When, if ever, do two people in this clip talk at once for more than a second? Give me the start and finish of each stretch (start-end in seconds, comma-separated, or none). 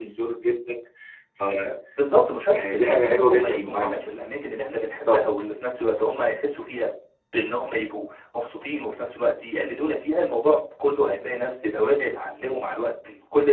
2.5-4.0